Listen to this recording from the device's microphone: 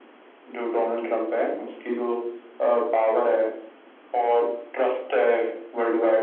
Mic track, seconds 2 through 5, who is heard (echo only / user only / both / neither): echo only